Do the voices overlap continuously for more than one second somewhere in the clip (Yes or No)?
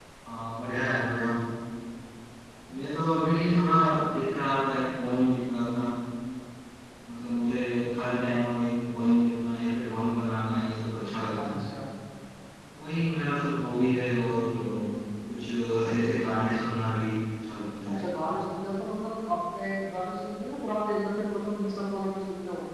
No